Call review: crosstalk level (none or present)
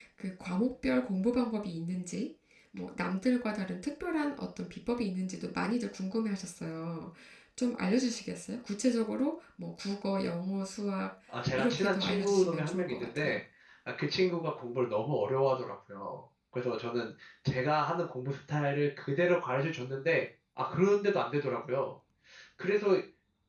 present